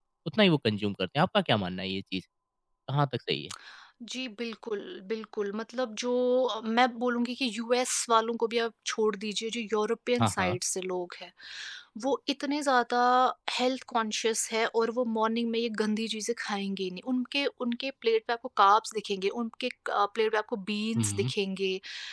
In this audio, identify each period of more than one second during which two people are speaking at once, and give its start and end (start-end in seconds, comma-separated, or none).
none